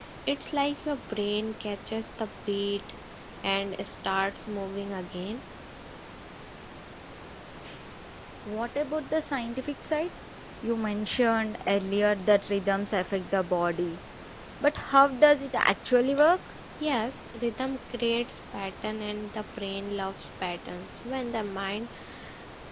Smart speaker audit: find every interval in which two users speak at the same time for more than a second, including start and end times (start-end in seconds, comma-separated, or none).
none